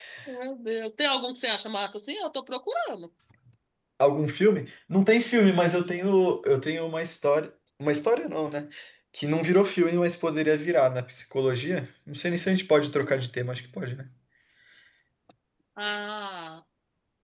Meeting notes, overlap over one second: none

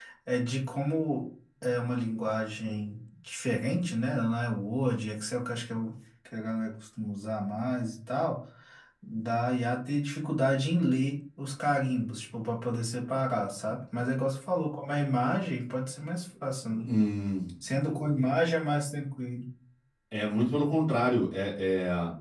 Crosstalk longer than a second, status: none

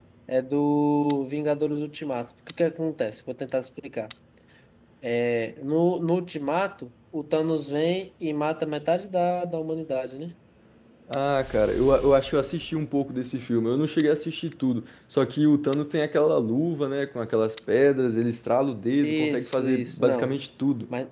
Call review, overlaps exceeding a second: present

